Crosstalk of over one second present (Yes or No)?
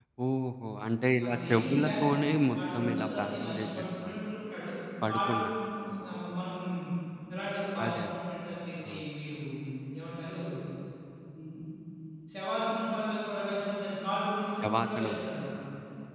Yes